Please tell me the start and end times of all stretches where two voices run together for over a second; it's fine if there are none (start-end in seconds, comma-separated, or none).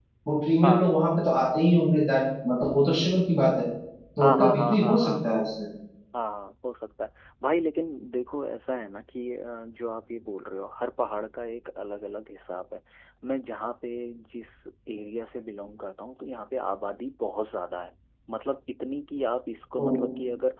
4.2-5.4